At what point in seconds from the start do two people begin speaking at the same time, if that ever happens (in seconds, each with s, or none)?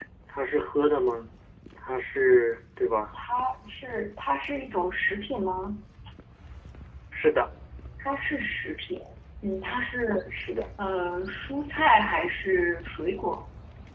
none